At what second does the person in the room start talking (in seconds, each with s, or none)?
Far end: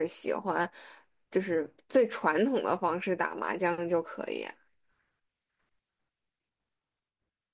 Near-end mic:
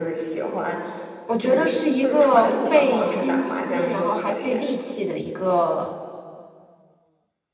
1.2 s